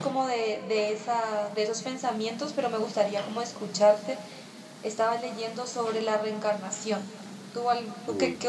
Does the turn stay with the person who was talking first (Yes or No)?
Yes